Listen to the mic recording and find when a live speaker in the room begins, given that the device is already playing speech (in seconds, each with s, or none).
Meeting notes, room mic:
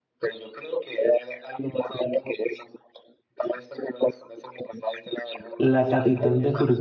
5.6 s